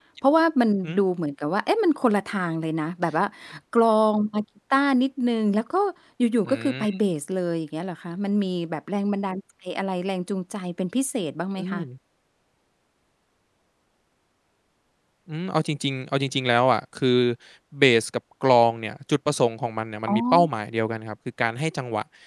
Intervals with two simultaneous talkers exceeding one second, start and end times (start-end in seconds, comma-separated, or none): none